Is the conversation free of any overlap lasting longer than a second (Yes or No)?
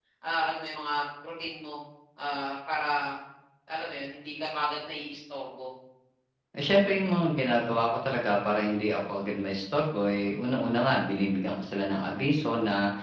Yes